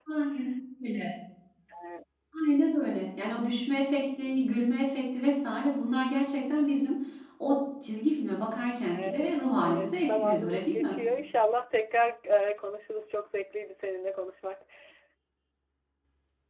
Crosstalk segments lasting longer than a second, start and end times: 9.6-11.0

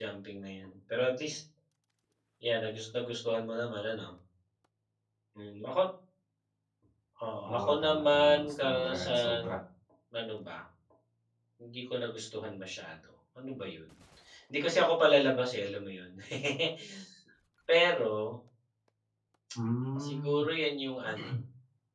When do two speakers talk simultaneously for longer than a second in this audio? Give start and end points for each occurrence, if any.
7.5-9.5

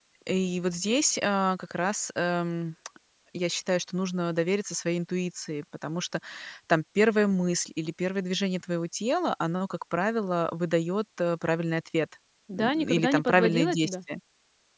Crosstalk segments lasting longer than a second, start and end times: 12.6-13.9

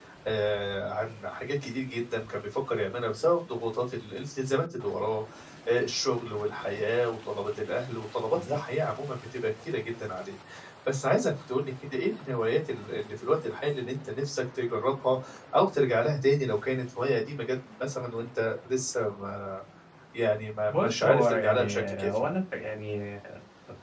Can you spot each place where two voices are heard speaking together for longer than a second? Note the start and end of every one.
20.7-22.3

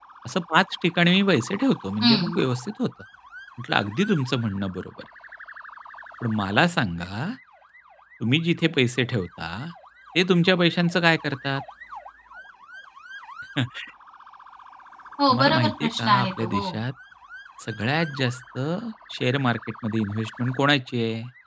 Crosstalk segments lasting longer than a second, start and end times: 15.3-16.8

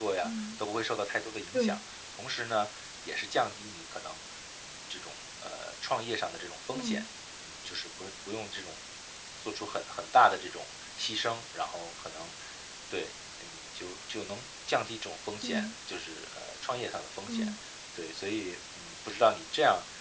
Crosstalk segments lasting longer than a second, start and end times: none

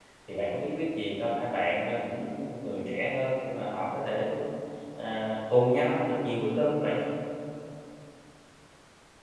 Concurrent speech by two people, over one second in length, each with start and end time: none

